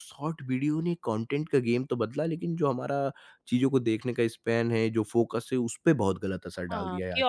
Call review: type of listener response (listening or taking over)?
taking over